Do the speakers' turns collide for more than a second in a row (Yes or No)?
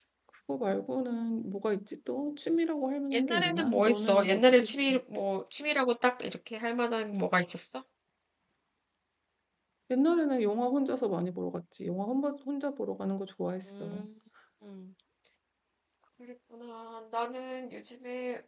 Yes